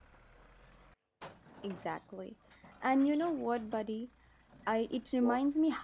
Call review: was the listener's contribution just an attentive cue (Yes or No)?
Yes